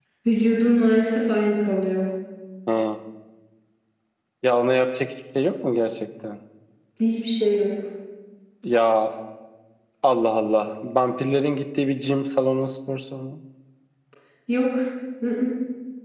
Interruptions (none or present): none